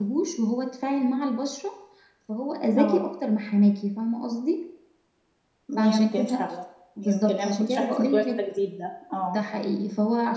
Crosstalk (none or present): present